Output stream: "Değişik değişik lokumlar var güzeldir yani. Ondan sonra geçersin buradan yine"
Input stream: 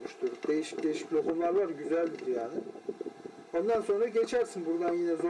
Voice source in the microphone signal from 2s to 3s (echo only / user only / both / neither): echo only